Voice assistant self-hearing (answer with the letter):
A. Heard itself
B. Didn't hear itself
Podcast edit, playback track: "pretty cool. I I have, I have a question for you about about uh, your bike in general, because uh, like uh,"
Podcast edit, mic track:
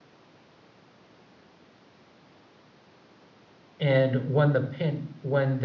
B